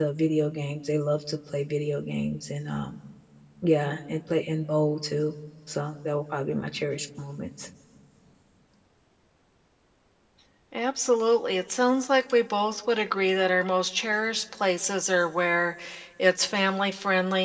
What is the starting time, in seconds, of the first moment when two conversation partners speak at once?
none

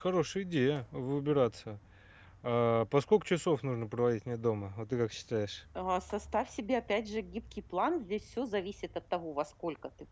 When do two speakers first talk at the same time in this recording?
none

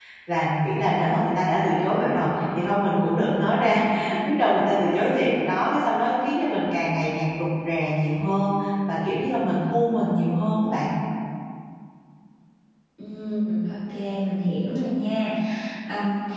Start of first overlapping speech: none

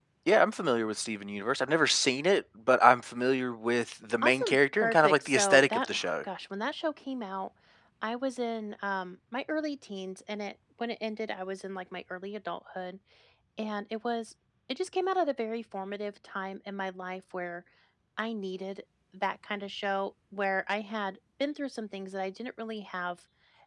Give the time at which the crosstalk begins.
4.2 s

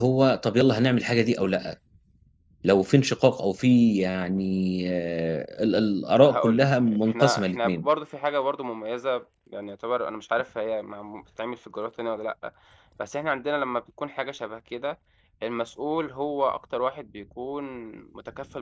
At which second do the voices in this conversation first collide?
6.2 s

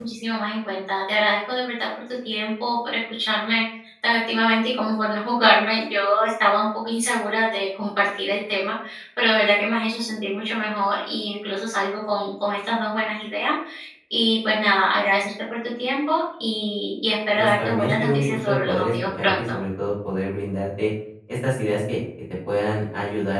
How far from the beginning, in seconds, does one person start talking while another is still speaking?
17.4 s

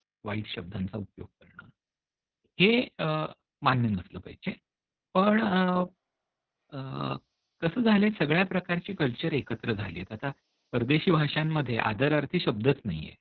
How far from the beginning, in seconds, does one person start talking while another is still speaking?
none

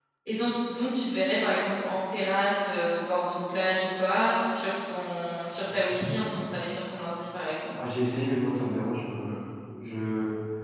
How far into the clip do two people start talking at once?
none

